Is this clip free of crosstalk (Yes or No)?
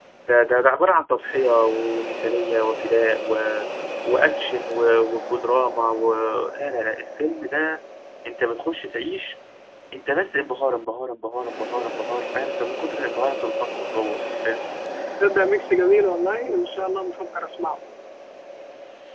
Yes